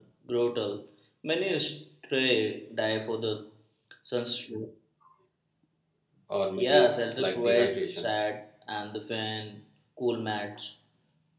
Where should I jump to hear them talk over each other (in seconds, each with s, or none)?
6.6 s